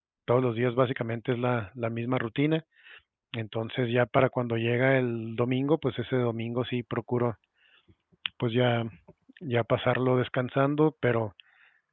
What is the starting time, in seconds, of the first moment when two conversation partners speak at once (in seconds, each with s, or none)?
none